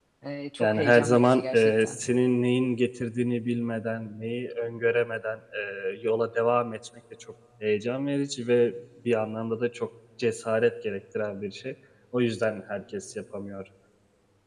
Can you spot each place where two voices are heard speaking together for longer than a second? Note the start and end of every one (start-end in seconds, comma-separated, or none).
0.6-2.0